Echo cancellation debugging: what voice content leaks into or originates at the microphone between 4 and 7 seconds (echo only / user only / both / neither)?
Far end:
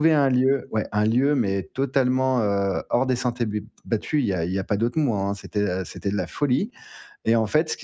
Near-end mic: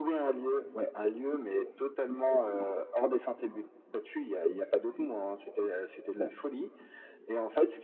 echo only